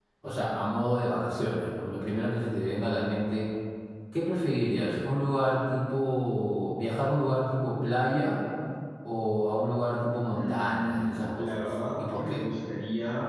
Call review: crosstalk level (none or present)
present